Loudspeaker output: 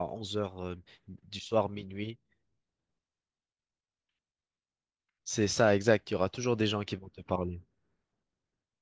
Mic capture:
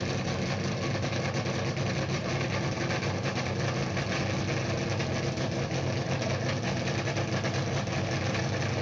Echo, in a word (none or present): none